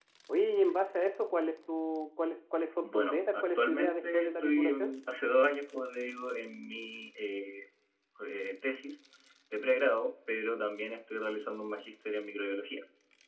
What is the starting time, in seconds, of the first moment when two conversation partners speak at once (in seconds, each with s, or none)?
2.8 s